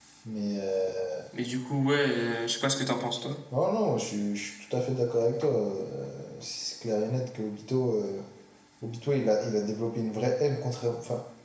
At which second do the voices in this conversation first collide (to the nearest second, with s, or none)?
none